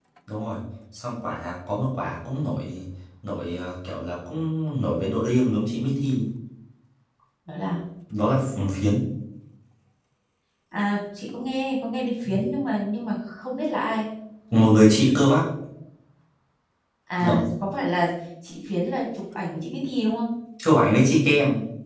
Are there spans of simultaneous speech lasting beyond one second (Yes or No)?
No